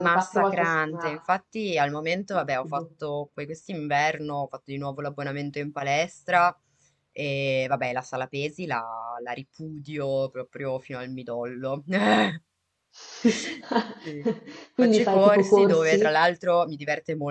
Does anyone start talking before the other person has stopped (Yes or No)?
Yes